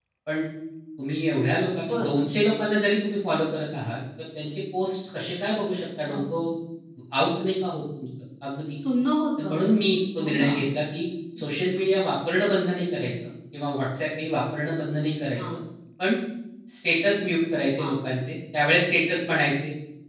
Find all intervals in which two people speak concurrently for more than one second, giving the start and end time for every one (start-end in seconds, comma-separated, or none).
none